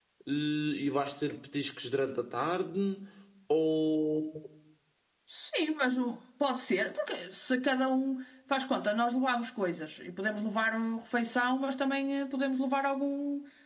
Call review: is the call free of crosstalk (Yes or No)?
Yes